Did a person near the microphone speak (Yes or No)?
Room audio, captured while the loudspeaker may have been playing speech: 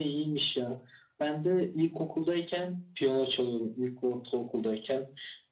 No